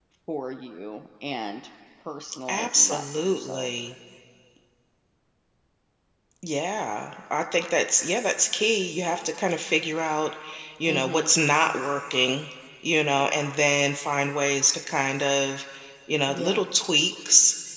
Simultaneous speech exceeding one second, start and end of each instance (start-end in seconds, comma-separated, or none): 2.5-3.7